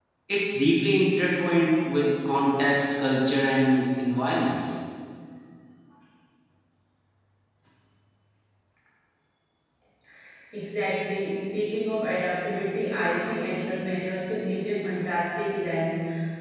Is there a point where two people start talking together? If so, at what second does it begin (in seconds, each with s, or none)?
none